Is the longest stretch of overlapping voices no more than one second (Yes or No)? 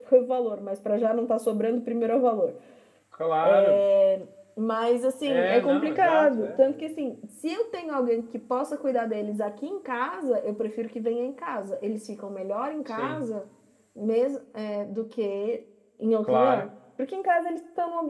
No